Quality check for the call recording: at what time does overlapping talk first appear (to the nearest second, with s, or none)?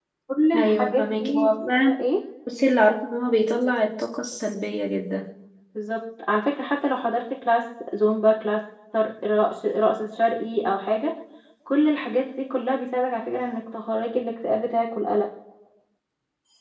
1 s